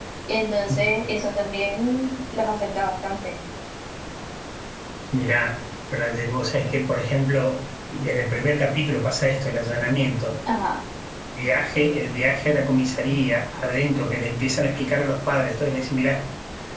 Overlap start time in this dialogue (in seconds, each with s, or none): none